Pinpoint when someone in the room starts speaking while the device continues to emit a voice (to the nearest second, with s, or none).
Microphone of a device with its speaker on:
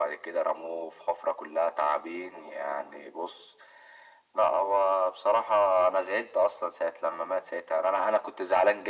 none